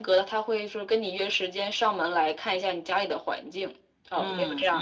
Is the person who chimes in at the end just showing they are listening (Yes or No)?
No